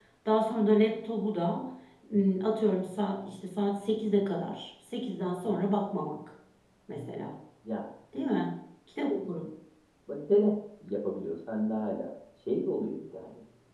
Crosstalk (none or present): none